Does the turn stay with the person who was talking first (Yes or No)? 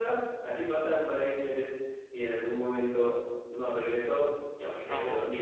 Yes